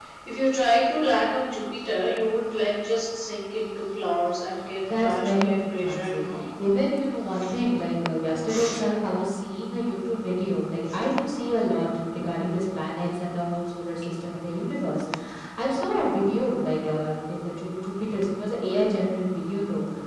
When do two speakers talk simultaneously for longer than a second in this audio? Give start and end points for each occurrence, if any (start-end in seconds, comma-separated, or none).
5.0-6.2